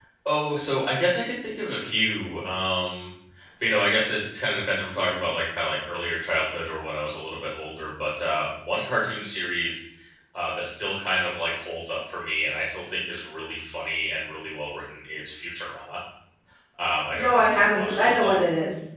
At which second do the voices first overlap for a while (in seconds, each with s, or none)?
17.1 s